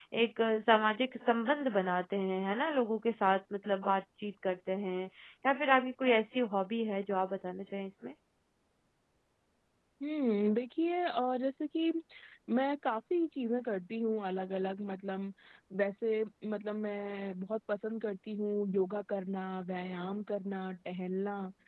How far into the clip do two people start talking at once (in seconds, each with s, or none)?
none